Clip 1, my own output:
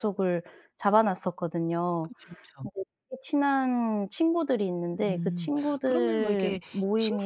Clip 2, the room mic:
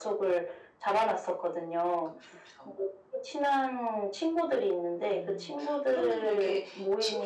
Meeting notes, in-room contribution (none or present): none